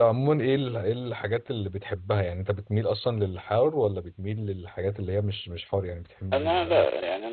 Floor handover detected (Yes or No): Yes